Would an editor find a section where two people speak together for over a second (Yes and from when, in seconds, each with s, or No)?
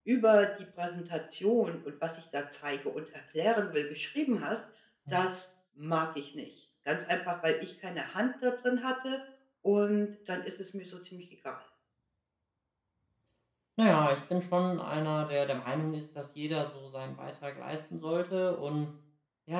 No